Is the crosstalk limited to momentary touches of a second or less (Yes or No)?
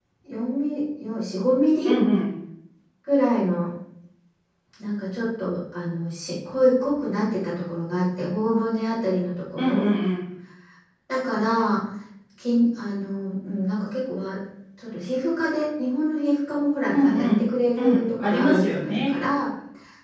No